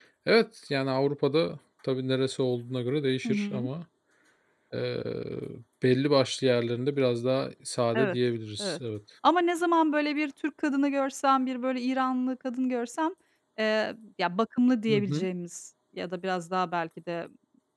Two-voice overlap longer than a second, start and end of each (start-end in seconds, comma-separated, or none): none